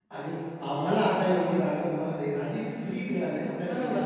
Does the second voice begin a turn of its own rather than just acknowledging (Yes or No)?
Yes